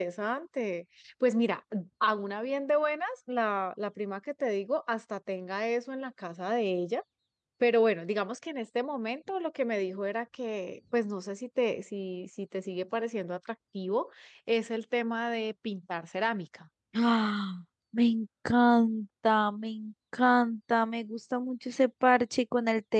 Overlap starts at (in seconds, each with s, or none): none